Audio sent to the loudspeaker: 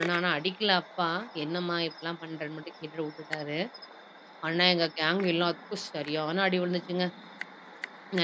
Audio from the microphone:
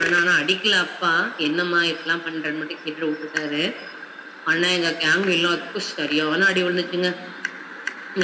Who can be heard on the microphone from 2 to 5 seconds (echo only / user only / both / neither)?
echo only